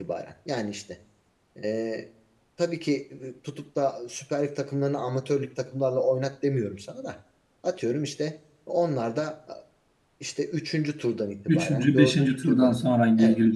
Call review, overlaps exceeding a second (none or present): present